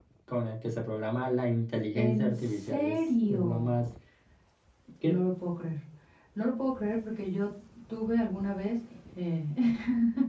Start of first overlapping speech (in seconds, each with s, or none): 1.9 s